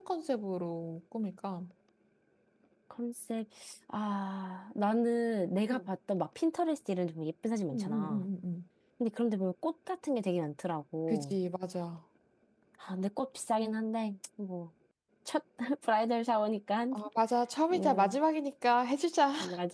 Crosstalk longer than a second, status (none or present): none